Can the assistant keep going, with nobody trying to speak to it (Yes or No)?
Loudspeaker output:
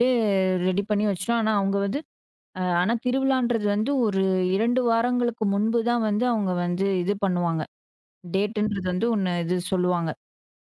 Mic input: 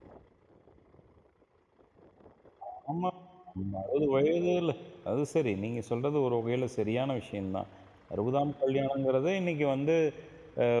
No